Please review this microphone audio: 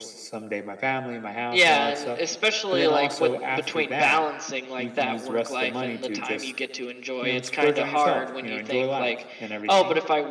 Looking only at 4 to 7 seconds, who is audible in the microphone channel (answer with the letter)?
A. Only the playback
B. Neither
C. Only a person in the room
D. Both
A